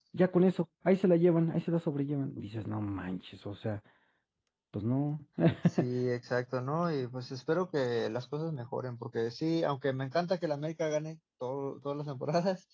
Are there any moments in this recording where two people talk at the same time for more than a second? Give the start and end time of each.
none

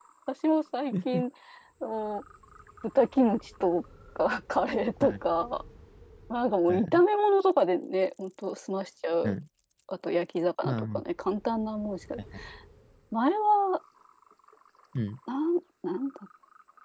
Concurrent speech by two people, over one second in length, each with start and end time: none

